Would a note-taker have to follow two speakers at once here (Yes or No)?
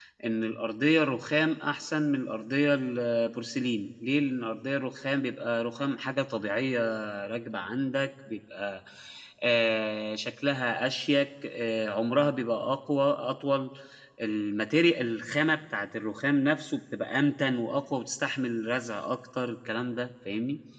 No